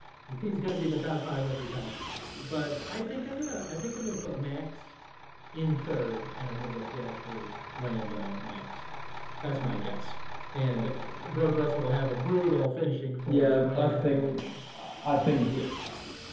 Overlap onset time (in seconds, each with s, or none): 13.3 s